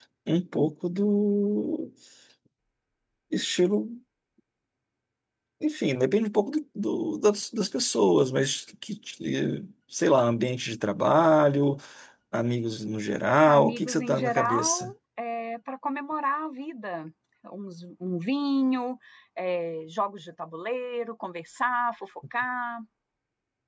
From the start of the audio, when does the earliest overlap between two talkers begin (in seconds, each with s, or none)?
13.4 s